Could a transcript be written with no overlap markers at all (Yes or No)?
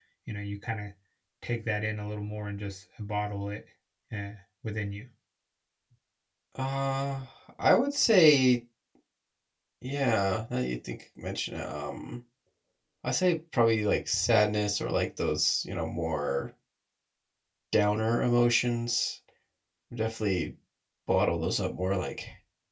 Yes